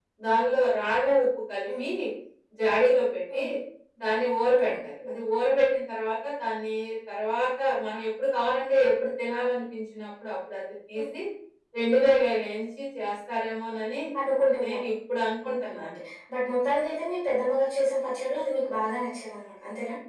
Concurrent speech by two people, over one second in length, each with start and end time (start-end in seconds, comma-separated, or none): none